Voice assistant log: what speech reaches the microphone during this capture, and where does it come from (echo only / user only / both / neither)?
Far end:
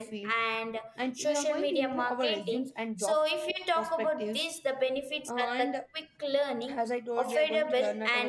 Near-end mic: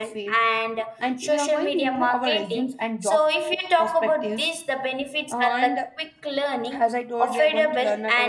echo only